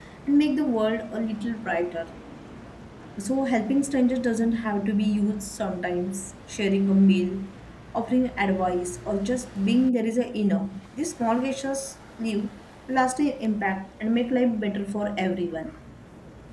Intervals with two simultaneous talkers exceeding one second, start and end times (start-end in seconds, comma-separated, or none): none